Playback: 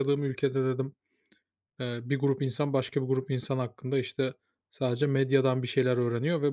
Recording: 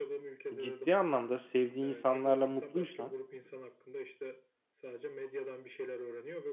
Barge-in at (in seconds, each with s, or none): 0.6 s